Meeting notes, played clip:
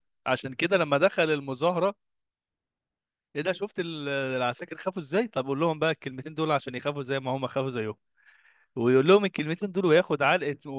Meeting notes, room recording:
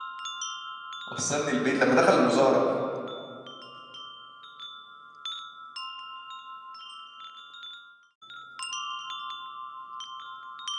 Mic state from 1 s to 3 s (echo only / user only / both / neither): user only